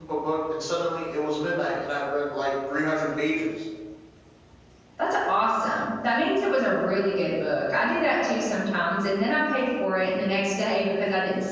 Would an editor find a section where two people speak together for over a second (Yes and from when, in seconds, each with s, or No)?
No